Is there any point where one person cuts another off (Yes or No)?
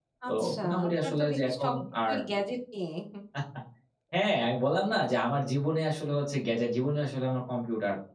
Yes